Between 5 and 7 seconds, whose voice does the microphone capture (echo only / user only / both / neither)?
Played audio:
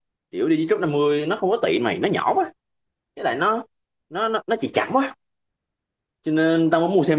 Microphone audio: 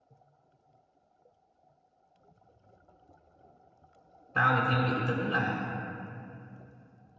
user only